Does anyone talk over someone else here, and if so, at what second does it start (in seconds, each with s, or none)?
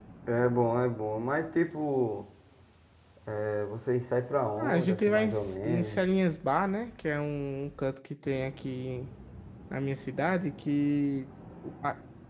4.6 s